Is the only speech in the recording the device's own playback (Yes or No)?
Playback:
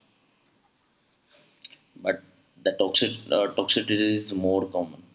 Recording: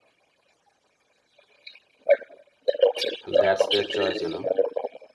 No